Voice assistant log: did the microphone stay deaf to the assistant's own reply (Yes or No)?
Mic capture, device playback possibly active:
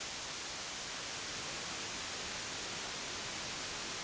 Yes